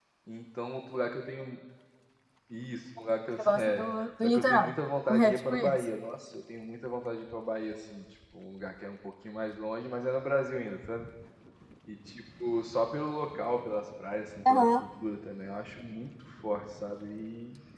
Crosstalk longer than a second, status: present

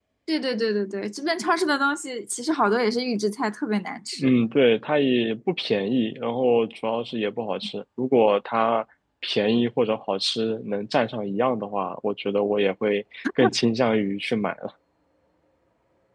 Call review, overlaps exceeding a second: none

